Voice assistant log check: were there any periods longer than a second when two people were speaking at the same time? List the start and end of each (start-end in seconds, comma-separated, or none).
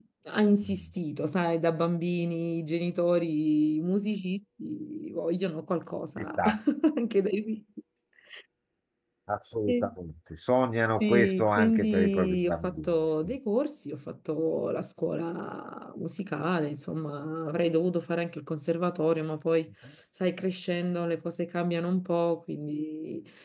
11.0-12.9